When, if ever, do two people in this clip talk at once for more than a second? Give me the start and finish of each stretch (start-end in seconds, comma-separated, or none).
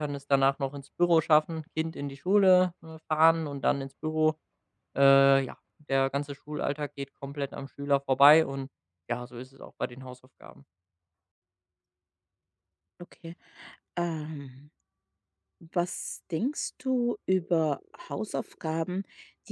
none